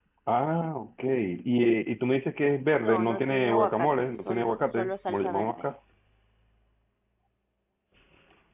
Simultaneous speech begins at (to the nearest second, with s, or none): 3 s